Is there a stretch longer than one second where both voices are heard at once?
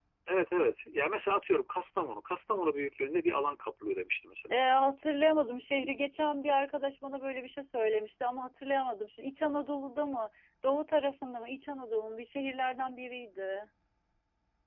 No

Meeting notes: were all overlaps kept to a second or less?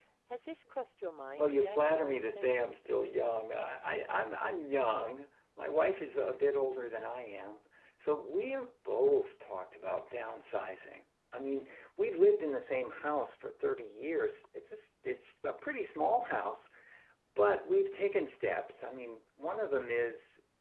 No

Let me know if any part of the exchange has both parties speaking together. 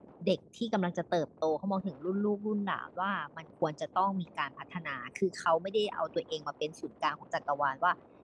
No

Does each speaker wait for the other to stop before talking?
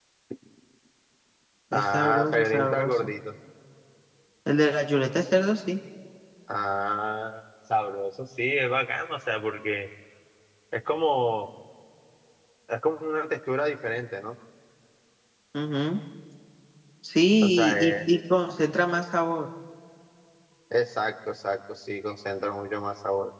No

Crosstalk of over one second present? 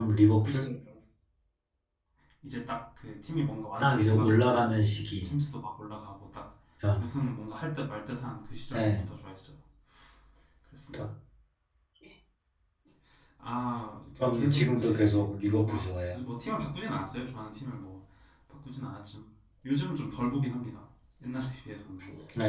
Yes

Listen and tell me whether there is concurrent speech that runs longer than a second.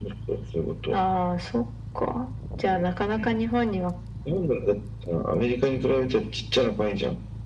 No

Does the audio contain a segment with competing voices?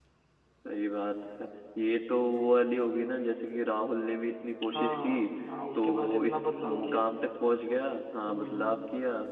Yes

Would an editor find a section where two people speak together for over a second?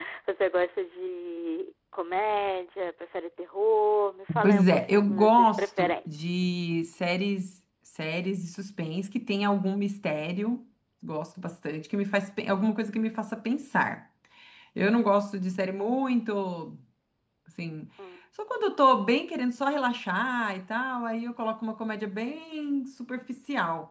Yes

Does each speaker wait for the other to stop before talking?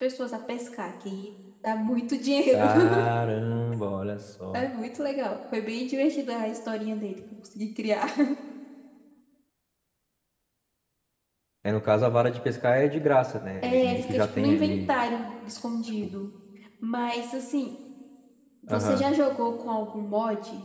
No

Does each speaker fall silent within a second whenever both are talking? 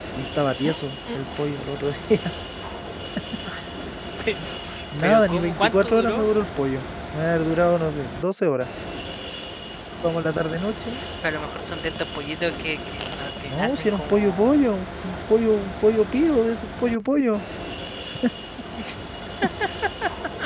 No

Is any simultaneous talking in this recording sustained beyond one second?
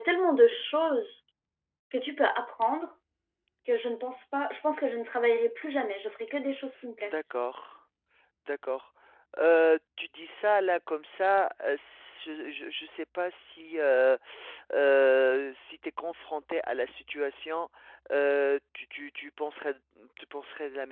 No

